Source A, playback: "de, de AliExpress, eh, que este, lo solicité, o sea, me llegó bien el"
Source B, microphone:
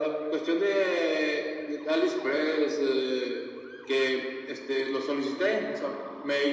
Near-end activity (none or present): none